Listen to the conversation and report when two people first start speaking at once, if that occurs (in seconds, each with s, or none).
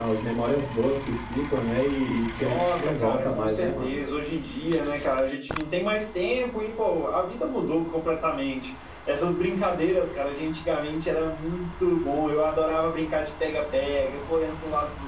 2.4 s